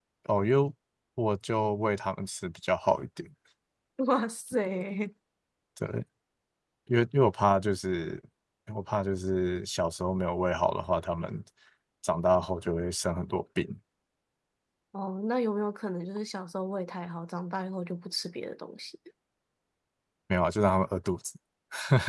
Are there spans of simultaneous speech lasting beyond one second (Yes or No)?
No